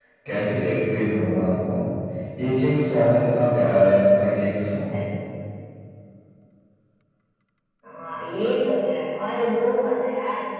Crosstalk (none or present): none